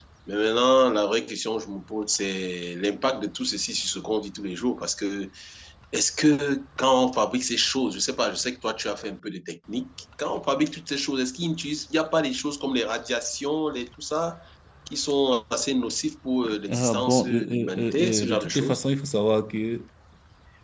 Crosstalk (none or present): present